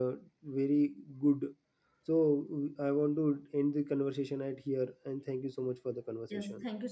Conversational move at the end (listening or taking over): taking over